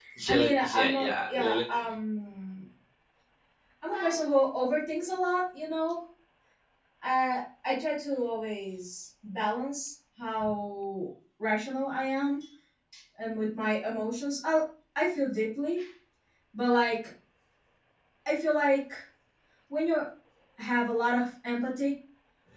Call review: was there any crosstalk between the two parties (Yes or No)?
Yes